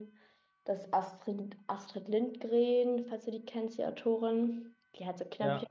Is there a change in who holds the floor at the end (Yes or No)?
No